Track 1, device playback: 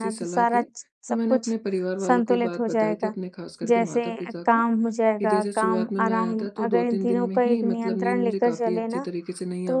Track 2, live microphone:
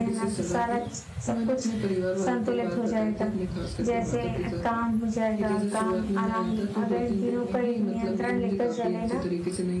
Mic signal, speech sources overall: echo only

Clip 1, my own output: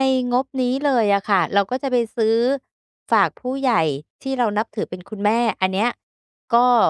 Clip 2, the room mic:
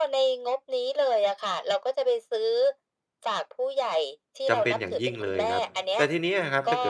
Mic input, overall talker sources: both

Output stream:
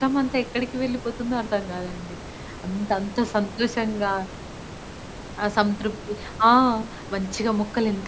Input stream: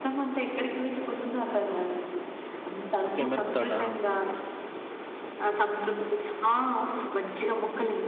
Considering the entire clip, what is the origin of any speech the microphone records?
both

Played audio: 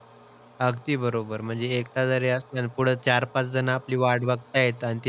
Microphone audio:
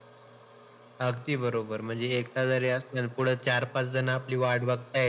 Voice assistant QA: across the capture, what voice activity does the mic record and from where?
echo only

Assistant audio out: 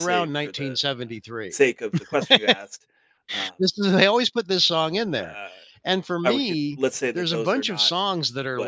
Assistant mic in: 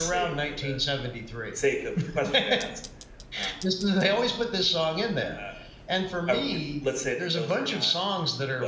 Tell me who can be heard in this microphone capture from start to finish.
echo only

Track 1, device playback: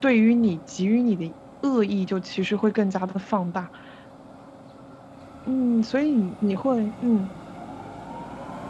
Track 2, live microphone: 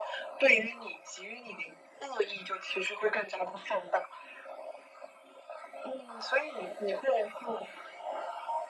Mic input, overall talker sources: echo only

